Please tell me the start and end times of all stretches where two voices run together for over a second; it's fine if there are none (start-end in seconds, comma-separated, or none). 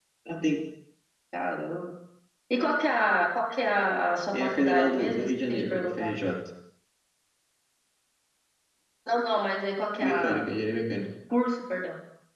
4.3-6.1